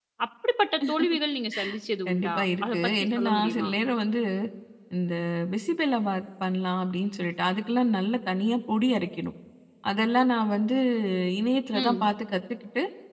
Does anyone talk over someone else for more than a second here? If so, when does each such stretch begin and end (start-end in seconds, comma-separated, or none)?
2.1-3.7